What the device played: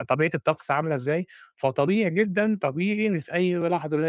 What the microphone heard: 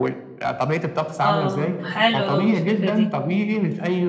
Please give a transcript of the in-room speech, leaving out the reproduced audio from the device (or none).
آه، حلوة أوي الفكرة دي.